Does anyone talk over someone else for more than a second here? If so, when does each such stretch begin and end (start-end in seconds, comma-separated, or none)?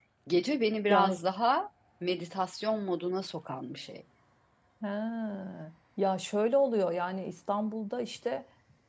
none